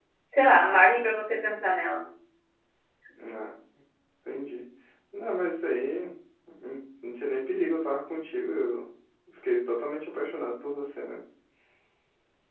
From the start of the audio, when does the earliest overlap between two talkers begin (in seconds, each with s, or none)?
none